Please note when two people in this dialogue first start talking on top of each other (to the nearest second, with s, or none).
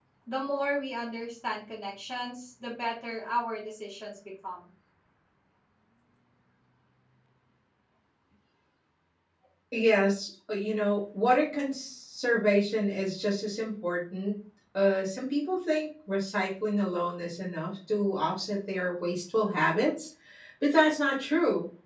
none